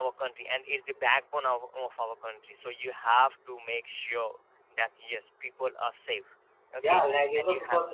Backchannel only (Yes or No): No